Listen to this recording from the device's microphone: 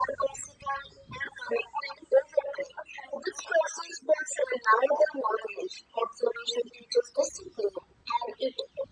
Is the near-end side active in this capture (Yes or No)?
No